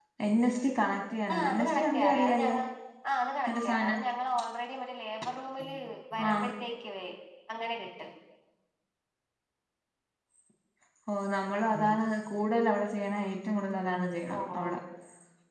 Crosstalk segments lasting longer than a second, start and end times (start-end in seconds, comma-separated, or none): 1.3-2.6